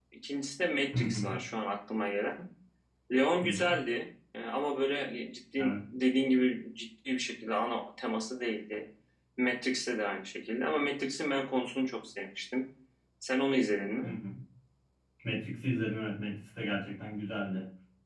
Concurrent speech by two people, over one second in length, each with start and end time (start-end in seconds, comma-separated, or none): none